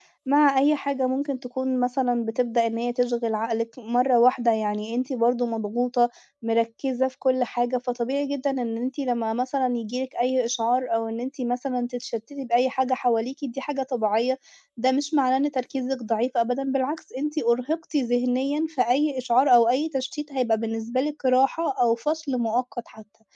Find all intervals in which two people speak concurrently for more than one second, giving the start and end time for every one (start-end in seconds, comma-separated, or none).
none